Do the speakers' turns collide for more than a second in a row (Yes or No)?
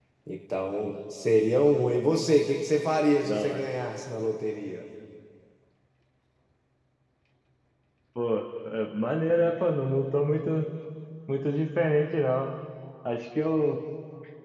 No